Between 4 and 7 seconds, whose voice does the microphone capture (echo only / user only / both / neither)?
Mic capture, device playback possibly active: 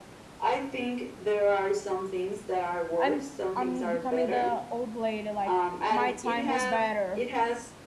both